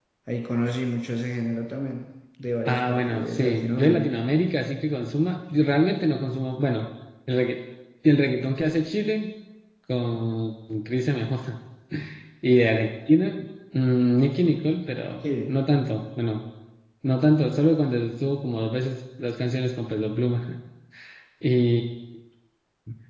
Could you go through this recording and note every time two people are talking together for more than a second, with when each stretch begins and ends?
2.7-4.1

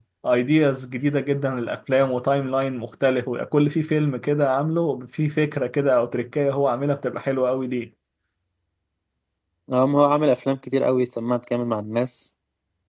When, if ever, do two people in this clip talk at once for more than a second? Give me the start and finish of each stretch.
none

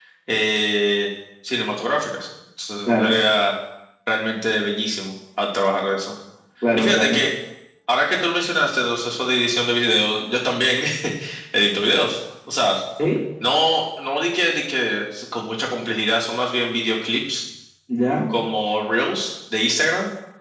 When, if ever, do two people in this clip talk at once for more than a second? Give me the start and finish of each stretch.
none

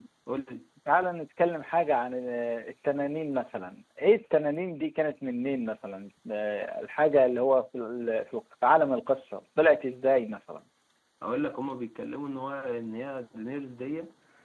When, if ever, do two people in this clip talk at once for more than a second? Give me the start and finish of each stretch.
none

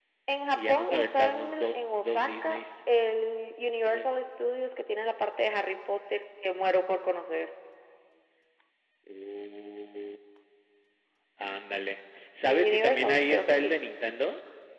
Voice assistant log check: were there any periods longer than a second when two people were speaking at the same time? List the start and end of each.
0.6-2.6, 12.4-13.7

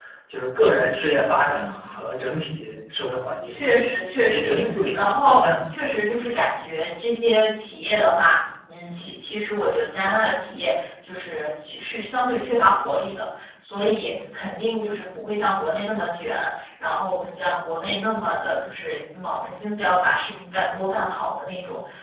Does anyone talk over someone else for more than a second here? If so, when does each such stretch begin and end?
4.2-5.5

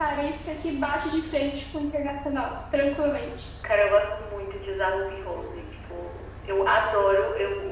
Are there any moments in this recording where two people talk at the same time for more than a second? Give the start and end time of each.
none

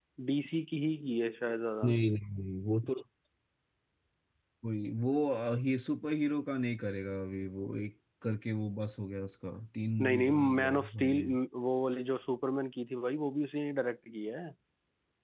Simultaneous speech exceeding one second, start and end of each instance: 10.0-11.3

